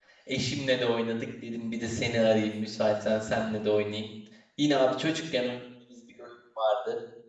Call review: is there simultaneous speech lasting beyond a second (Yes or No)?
No